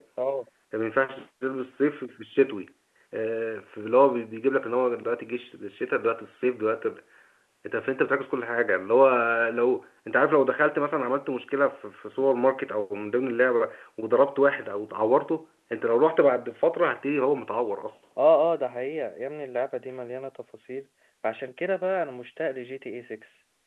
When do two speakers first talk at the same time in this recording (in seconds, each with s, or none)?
none